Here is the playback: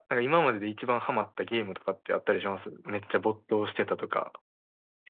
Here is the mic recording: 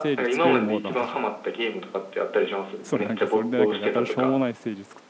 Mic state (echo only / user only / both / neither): both